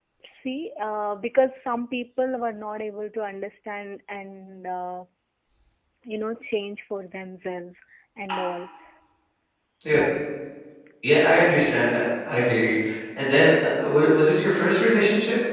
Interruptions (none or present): none